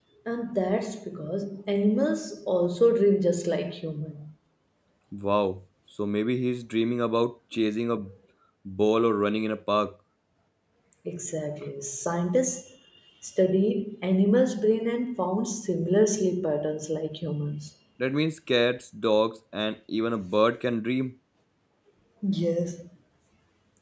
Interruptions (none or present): none